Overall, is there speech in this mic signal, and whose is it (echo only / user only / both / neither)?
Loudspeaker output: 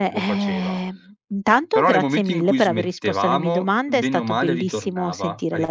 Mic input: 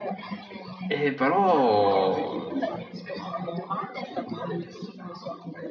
both